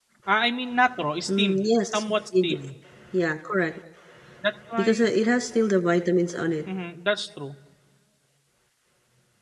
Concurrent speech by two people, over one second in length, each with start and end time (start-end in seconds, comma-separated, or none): 1.3-2.6